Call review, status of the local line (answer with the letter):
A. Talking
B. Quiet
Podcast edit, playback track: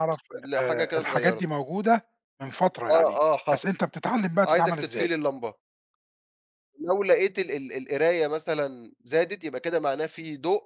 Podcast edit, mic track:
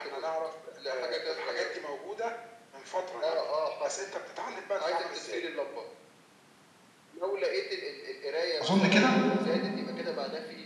A